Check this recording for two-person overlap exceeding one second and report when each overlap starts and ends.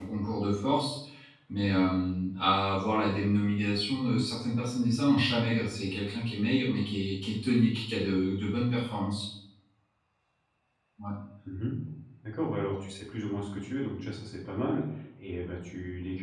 none

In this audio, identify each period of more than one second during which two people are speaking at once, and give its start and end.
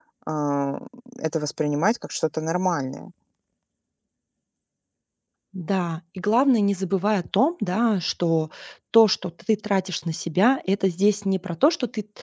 none

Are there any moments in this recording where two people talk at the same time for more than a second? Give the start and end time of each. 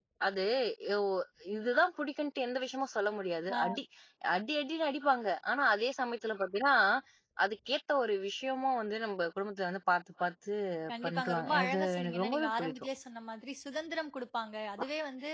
11.0-12.7

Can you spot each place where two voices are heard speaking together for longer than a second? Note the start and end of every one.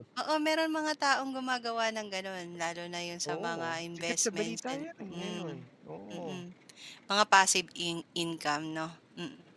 3.3-5.6

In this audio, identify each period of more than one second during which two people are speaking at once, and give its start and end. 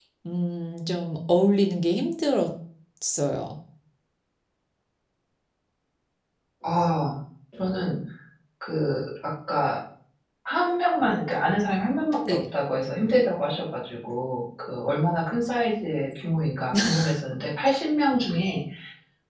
none

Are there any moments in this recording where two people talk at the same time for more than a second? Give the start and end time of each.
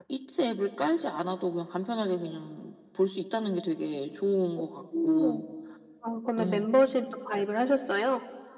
none

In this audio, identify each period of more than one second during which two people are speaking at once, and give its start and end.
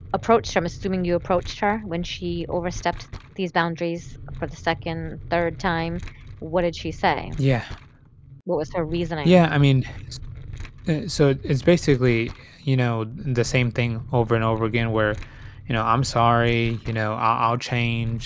none

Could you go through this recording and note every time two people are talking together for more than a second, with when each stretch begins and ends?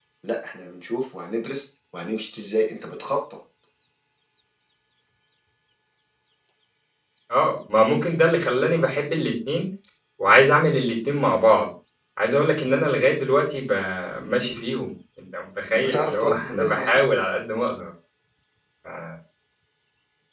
15.7-17.1

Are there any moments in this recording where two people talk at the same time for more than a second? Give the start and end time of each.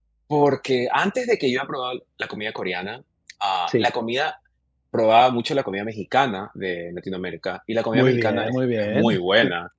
7.9-9.2

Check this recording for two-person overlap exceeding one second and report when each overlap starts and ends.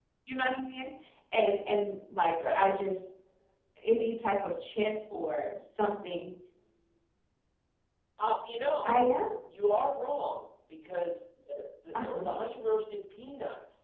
none

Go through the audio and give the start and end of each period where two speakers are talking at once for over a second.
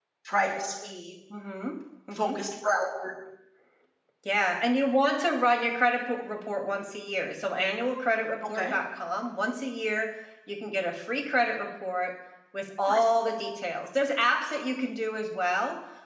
none

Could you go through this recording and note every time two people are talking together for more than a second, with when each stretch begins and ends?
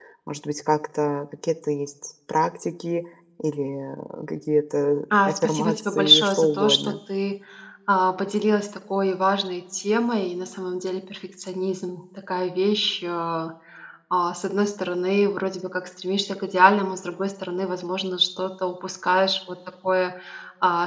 5.1-6.9

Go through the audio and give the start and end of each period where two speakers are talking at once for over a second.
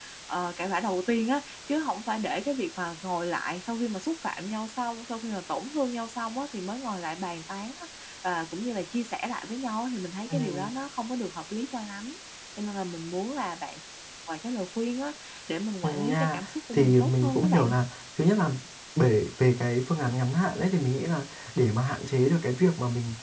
15.8-17.8

